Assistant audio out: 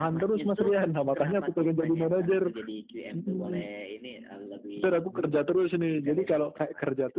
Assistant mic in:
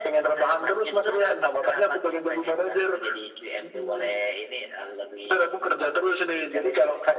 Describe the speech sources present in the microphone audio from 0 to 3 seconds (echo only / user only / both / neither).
echo only